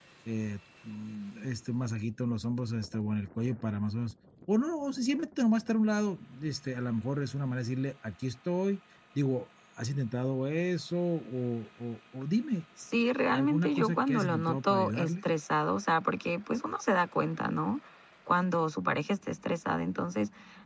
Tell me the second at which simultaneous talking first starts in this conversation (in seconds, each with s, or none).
13.3 s